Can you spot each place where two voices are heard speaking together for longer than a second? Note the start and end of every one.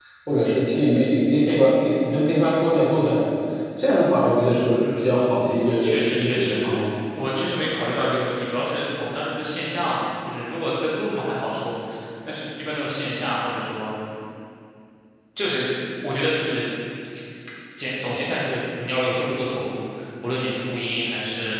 4.7-6.6

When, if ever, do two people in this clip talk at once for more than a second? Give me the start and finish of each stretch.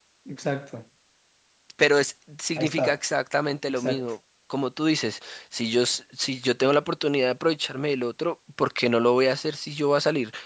none

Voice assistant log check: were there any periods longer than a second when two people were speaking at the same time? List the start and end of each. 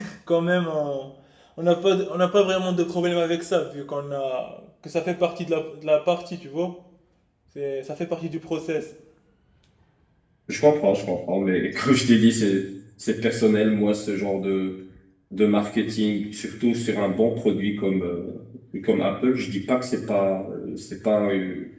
none

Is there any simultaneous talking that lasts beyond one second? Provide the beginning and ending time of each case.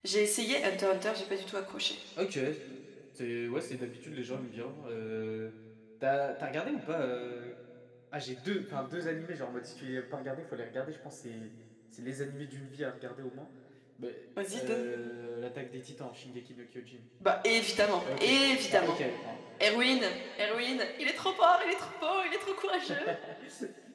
none

